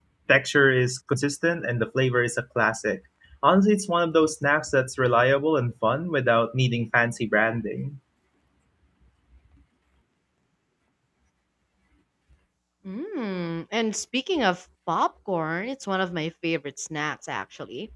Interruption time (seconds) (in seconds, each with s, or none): none